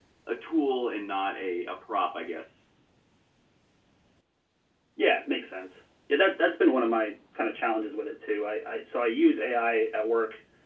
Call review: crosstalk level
none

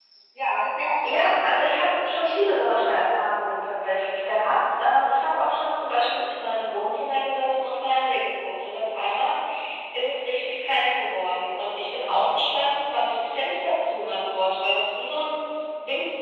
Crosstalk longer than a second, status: present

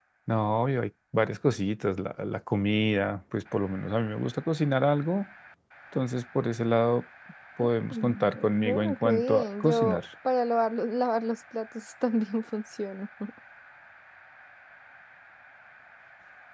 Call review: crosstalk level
present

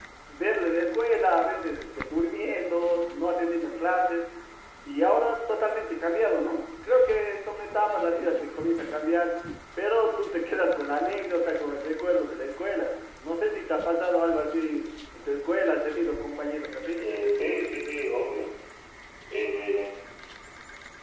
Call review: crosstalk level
none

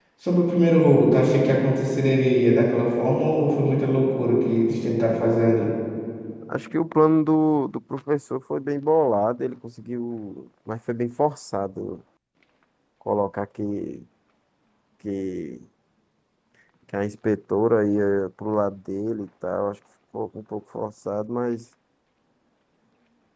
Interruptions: none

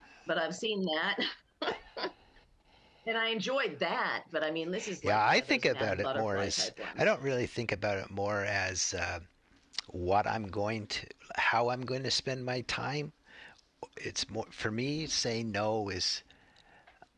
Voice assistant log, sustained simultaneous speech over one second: present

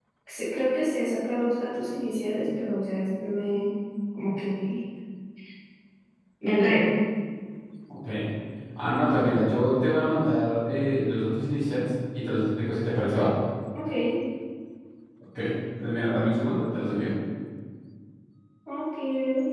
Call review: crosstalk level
none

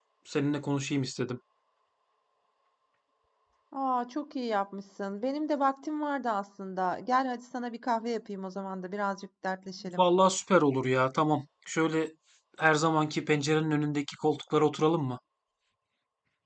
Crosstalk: none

